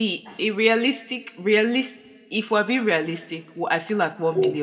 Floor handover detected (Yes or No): No